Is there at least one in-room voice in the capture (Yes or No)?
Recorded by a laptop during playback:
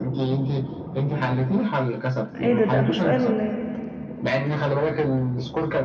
Yes